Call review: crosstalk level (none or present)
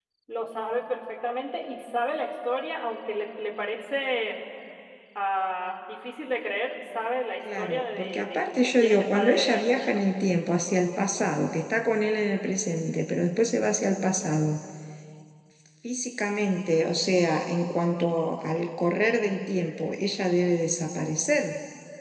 present